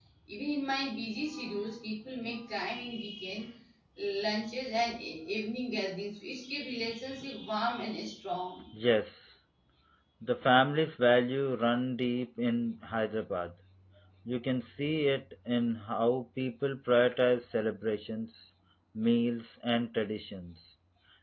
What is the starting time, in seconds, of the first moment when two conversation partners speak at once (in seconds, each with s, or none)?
none